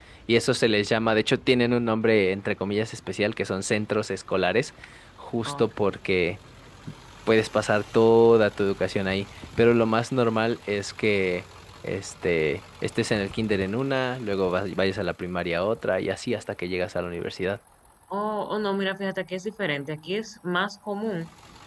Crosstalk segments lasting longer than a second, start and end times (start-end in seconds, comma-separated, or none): none